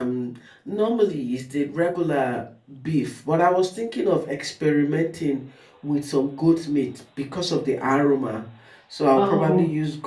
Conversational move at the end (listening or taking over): listening